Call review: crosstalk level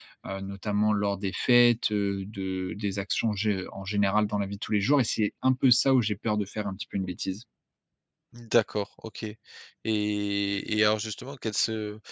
none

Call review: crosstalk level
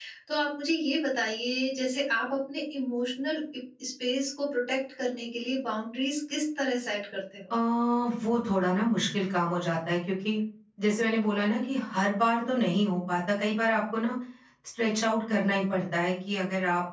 none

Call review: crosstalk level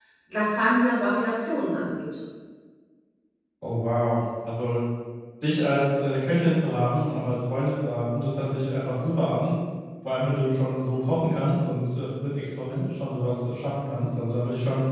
none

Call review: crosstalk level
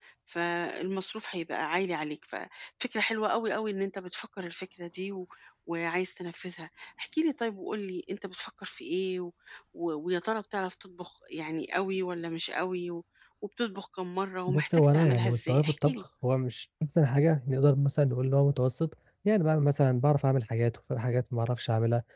present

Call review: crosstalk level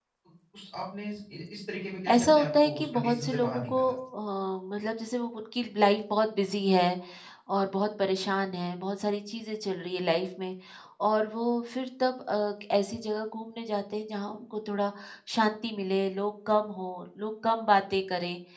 present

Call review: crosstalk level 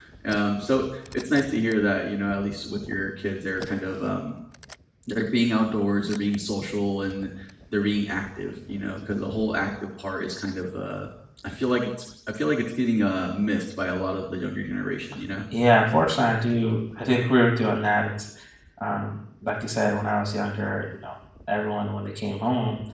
none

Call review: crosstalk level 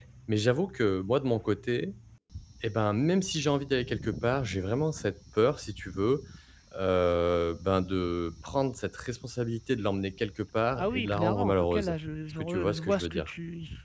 present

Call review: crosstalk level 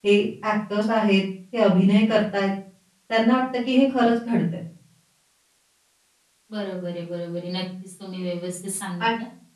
none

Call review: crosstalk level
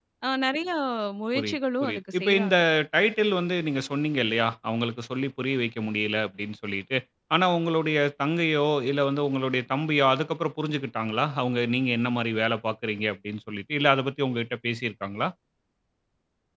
present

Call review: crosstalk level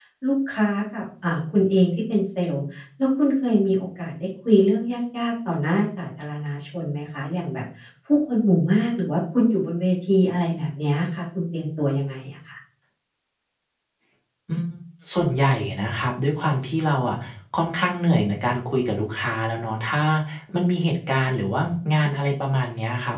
none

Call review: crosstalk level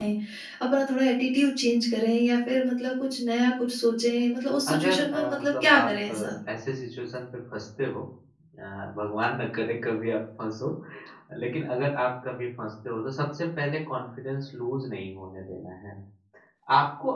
present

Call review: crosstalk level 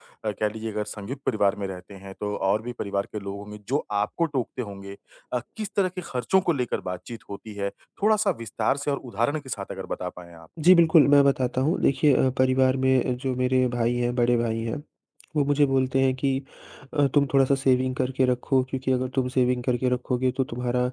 none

